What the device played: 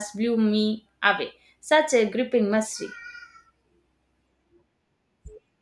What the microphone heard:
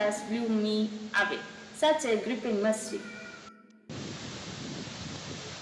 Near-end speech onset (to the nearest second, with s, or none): none